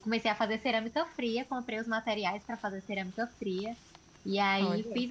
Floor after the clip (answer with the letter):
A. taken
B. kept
B